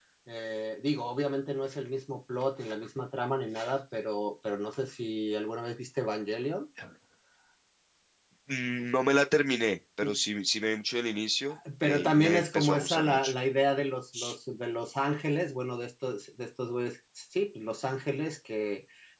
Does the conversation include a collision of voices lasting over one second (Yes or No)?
Yes